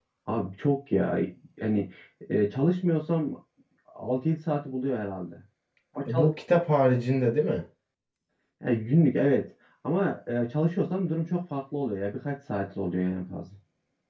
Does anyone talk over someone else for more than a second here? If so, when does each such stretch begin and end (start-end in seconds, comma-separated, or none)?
none